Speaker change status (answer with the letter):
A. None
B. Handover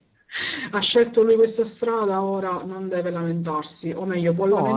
A